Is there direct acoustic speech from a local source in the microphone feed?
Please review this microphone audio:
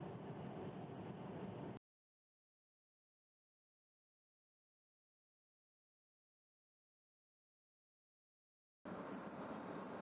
No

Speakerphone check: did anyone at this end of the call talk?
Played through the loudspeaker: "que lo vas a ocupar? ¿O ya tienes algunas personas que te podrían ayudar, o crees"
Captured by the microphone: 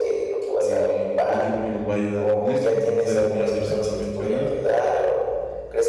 Yes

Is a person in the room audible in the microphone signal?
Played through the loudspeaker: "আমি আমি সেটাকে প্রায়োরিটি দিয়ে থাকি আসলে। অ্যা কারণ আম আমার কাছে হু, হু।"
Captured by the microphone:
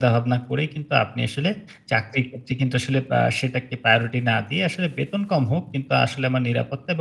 Yes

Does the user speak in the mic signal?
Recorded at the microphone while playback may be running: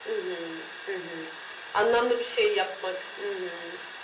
No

